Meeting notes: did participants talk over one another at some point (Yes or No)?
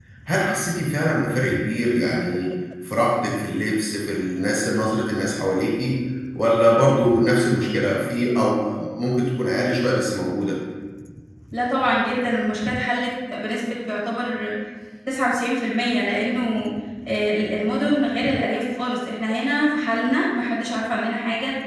No